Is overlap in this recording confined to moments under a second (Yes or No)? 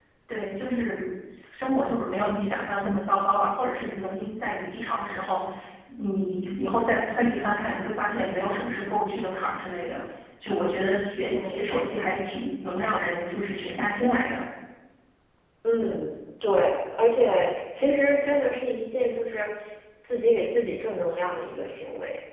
Yes